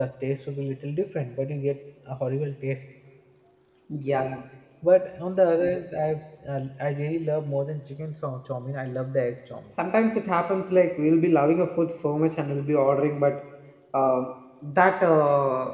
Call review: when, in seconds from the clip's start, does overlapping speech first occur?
none

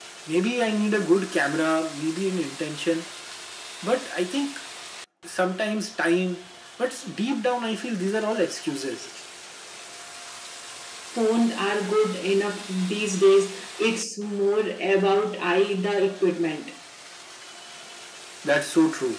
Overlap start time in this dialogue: none

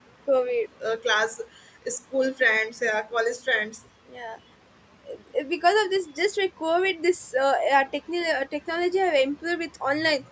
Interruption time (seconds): none

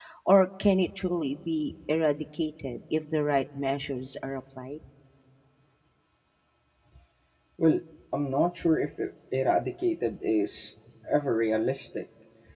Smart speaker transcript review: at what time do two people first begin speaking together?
none

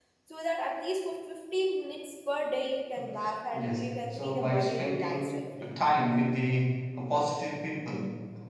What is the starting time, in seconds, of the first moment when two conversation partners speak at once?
3.5 s

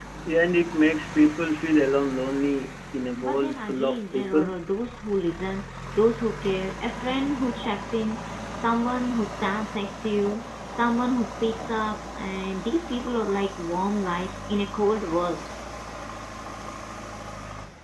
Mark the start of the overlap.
3.2 s

